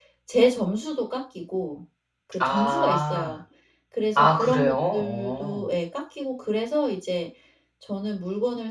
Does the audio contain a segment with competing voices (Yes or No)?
Yes